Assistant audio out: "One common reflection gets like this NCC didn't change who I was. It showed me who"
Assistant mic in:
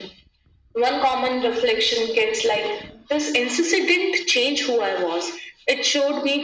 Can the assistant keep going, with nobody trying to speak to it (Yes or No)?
Yes